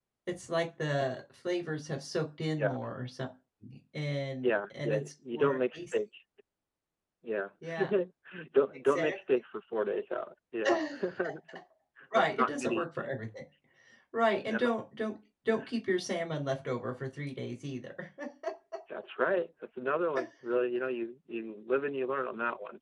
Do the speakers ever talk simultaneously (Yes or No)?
Yes